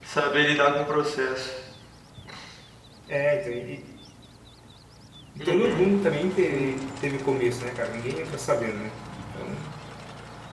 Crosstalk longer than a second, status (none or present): none